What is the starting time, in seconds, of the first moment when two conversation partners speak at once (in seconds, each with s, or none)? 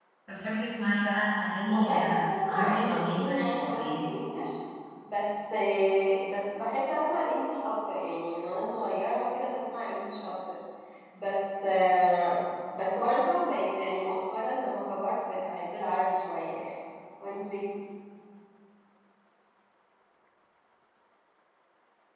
1.7 s